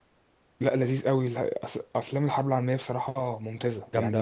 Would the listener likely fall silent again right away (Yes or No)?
Yes